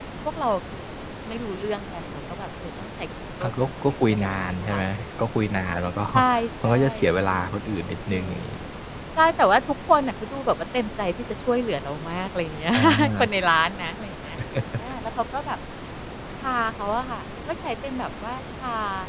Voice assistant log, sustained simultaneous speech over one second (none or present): present